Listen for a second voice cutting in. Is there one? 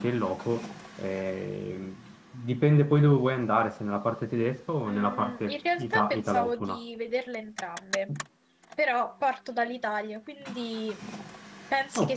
Yes, from 4.8 s

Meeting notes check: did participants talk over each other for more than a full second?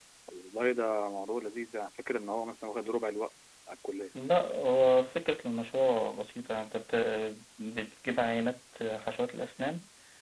No

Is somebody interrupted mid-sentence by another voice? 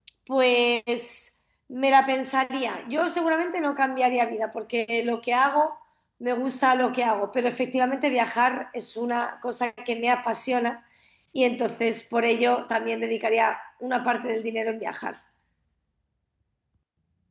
No

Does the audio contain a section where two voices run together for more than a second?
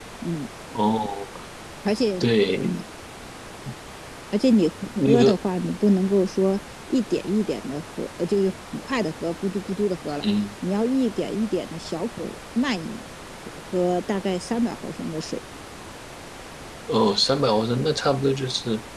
No

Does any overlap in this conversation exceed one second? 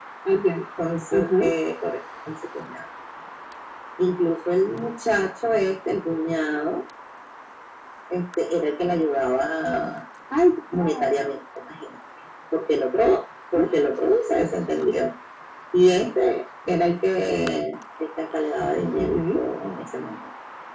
No

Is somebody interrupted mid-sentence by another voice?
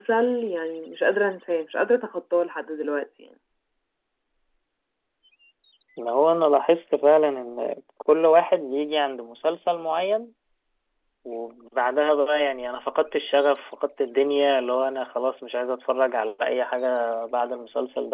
No

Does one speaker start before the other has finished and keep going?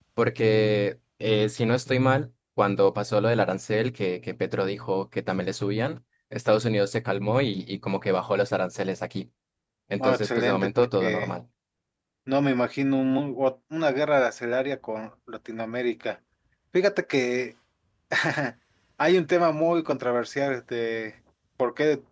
Yes, from 10.0 s

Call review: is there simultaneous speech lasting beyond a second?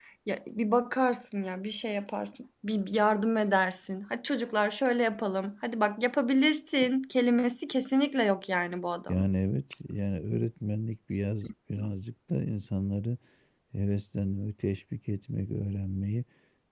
No

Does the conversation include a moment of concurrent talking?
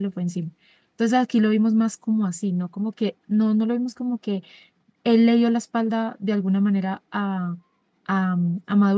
No

